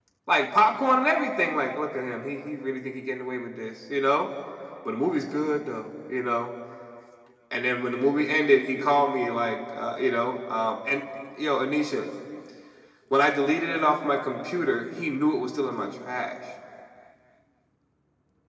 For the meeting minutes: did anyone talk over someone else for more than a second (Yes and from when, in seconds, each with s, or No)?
No